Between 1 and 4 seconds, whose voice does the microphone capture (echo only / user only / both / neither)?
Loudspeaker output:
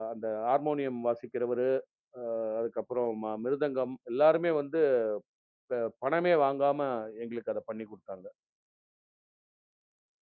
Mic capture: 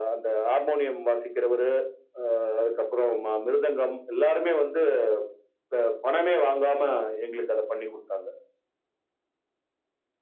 echo only